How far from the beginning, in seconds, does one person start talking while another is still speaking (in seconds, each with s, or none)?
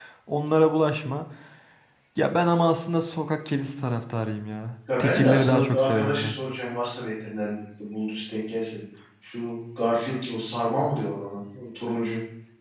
4.9 s